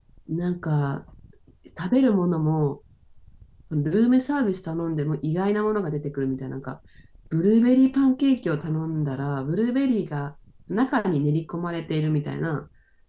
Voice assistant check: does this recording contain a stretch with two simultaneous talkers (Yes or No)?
No